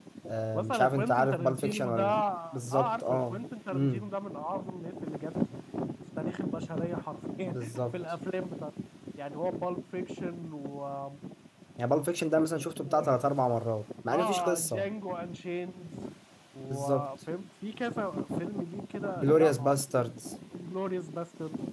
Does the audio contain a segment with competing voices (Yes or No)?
Yes